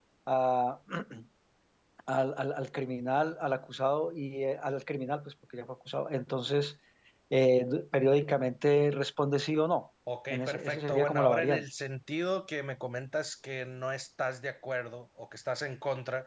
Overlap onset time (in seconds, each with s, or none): 10.1 s